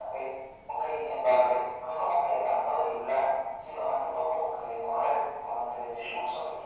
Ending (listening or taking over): listening